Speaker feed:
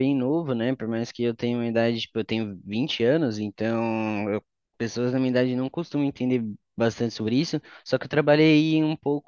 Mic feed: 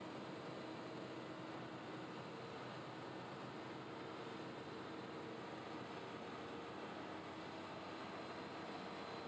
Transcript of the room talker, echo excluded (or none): none